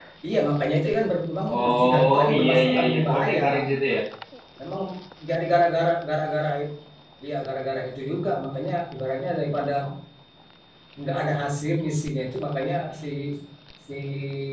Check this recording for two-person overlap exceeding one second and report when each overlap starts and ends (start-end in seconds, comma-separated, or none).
1.5-3.4